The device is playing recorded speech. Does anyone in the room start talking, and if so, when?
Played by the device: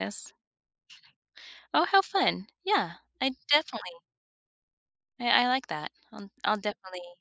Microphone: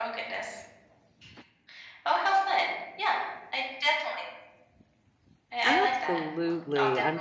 6 s

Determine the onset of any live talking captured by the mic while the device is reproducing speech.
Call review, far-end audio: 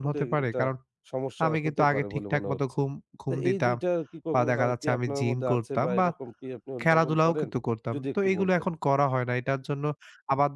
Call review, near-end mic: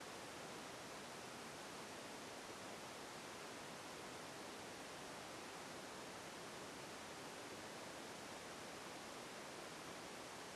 none

